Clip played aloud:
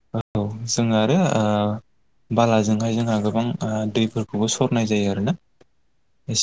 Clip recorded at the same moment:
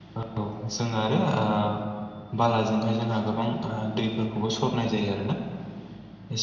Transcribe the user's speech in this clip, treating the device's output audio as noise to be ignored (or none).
none